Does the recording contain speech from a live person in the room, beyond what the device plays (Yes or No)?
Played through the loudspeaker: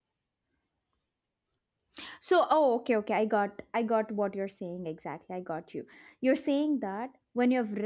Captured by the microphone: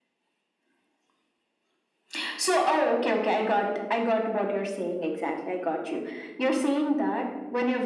No